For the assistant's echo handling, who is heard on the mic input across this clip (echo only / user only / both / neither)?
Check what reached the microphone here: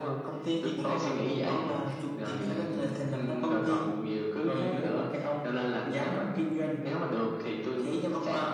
echo only